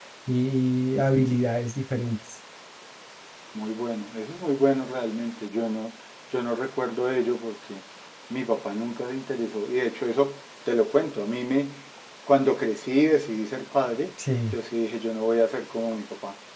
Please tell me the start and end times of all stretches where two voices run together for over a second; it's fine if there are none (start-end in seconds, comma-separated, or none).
none